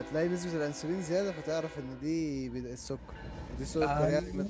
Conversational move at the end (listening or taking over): listening